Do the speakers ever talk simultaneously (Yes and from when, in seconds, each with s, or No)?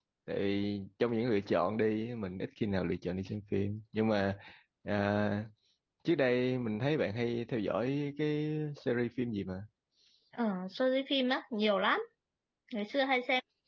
No